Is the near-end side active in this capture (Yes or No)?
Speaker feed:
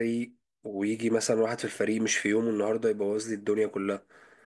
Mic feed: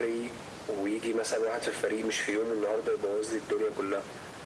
No